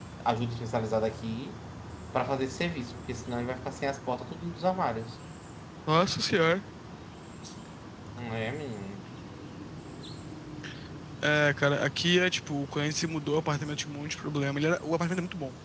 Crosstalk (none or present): none